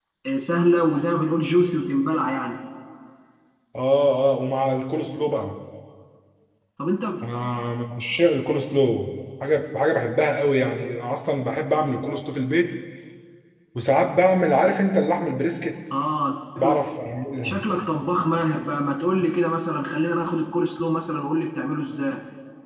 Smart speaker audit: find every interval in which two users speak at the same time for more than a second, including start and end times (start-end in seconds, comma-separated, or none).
none